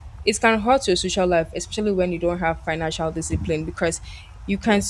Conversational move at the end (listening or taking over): listening